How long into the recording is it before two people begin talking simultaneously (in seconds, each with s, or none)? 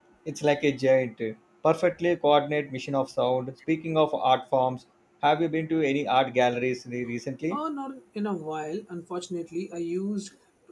none